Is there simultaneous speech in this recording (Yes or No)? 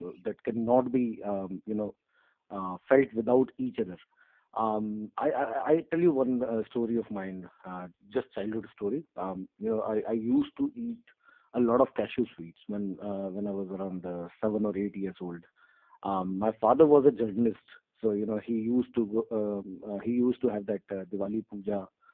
No